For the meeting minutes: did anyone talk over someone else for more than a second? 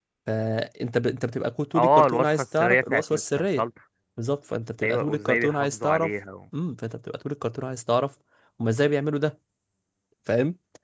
Yes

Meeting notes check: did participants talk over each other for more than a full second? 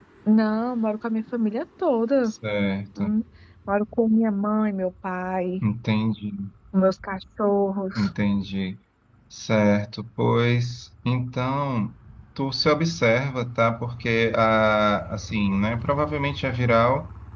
No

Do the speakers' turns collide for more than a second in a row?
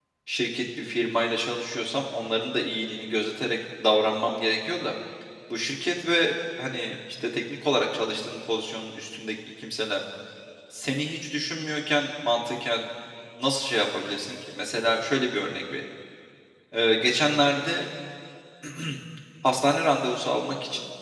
No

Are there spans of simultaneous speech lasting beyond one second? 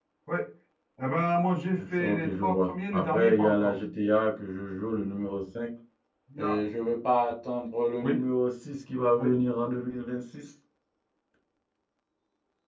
Yes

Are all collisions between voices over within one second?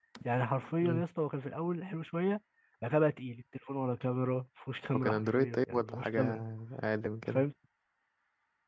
No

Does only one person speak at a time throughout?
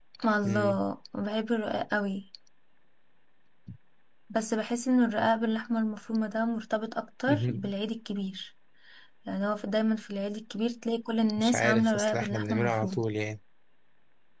No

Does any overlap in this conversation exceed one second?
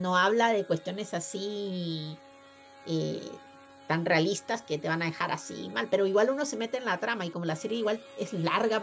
No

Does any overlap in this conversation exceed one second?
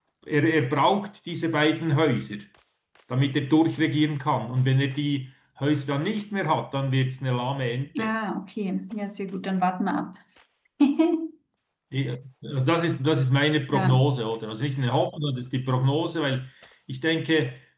No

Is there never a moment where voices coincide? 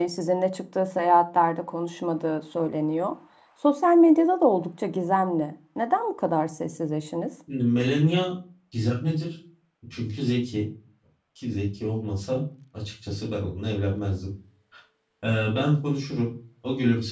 Yes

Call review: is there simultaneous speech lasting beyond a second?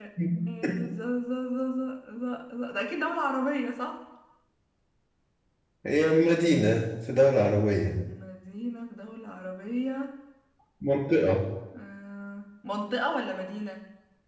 No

